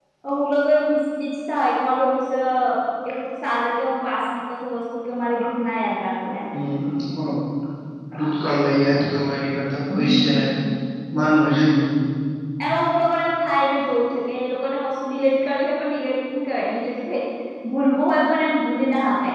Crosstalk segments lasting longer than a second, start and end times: none

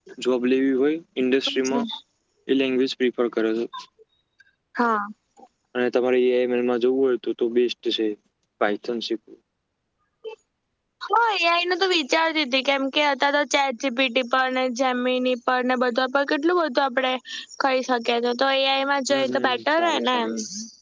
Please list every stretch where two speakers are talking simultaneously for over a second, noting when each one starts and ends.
19.1-20.3

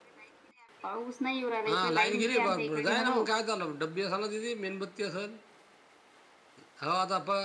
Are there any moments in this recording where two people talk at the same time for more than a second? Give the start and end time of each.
1.7-3.2

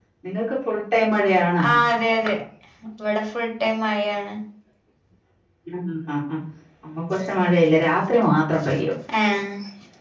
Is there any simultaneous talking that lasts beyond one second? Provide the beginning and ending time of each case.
none

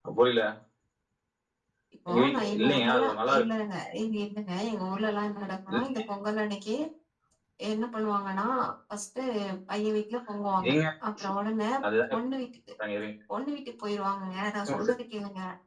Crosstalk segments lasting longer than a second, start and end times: 2.1-3.4

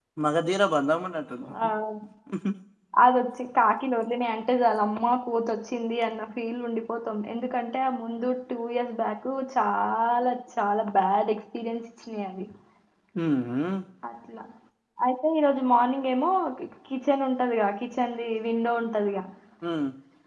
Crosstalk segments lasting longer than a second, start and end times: none

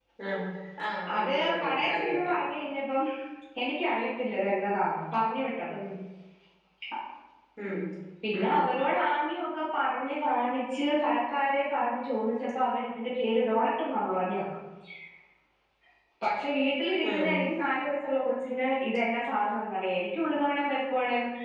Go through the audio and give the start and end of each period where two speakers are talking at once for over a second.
1.2-2.4

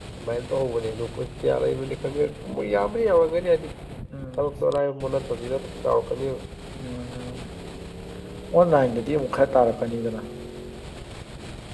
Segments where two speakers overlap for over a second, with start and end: none

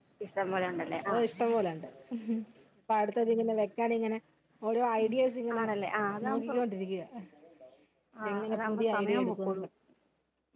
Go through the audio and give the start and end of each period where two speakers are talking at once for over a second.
8.3-9.6

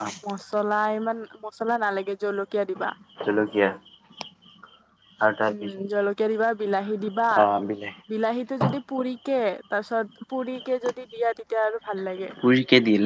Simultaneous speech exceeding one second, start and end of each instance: none

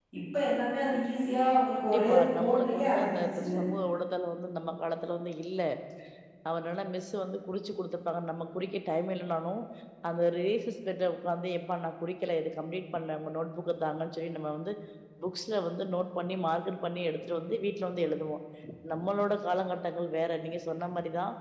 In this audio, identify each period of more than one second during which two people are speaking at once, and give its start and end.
1.8-3.5

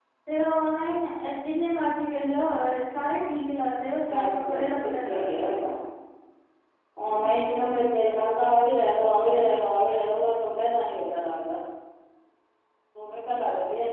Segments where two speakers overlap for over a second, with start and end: 4.1-5.5

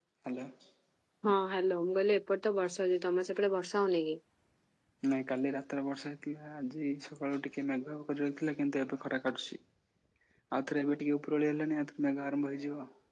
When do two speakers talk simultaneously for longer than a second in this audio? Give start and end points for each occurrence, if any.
none

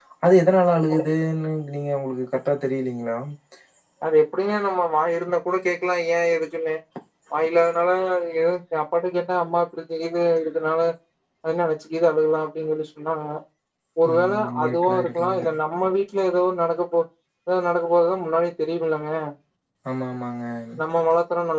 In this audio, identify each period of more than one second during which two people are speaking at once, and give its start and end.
14.1-15.4

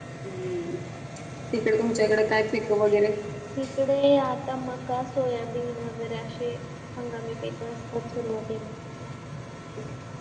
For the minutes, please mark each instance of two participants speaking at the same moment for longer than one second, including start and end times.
none

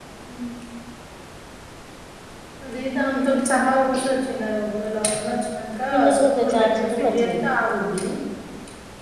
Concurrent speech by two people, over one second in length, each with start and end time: 6.2-7.5

